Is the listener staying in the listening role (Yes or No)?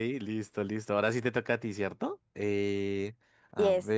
Yes